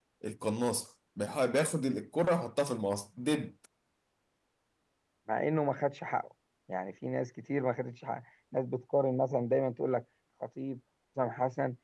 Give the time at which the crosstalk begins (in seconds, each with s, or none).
none